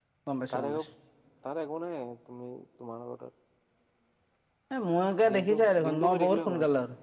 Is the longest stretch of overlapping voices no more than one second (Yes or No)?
No